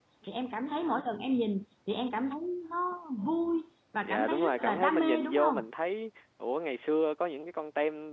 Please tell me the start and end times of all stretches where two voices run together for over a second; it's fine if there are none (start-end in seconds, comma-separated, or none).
4.0-5.6